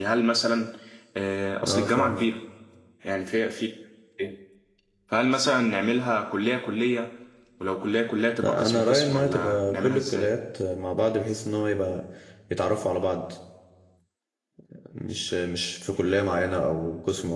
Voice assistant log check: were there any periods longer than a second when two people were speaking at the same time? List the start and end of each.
8.4-10.3

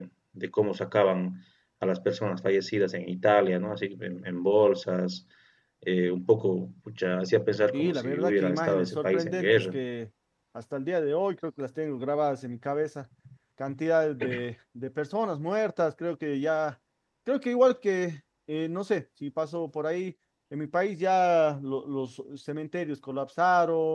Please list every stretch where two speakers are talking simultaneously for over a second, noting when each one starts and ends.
7.7-9.8

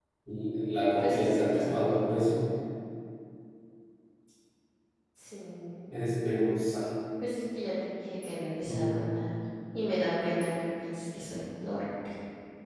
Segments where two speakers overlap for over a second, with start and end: 1.0-2.3

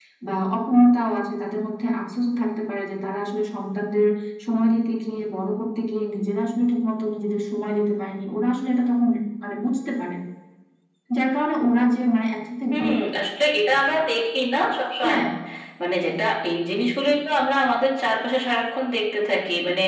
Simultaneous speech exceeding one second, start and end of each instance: none

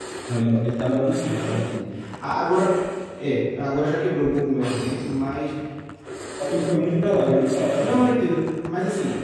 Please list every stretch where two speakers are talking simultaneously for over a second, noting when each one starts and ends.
none

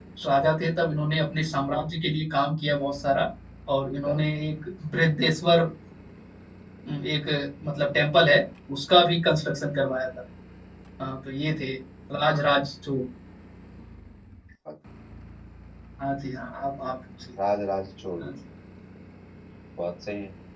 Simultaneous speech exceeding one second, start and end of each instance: none

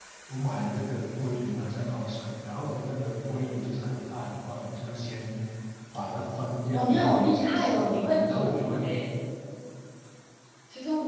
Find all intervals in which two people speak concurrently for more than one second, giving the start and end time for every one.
6.7-8.7

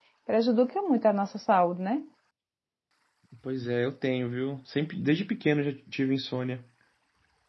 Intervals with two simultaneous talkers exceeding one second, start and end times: none

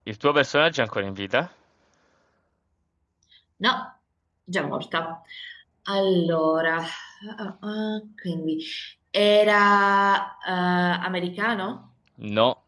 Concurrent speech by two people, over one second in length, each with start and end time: none

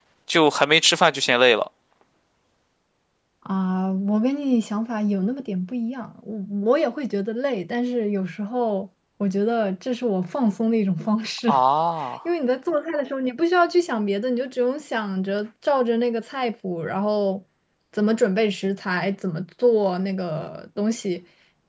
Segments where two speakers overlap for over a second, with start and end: none

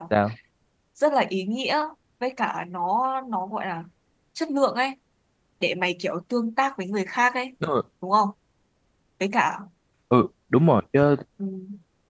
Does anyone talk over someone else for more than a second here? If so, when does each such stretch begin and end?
none

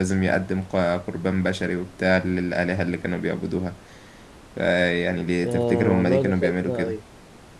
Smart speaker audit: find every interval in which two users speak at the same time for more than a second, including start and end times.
5.4-7.0

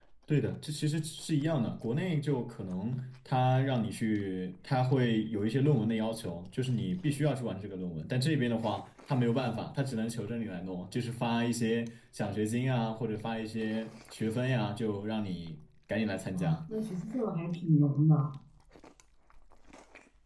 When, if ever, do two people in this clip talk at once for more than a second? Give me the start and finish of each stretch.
none

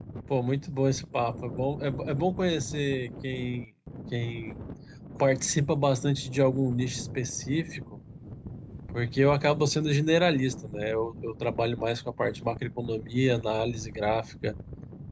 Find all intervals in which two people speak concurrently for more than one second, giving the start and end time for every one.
none

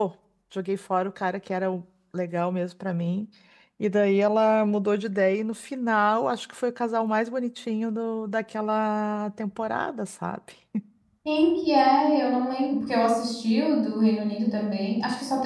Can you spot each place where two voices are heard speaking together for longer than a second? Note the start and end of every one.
none

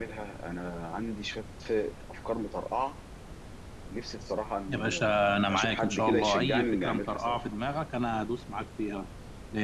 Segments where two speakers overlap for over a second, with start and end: 4.7-7.4

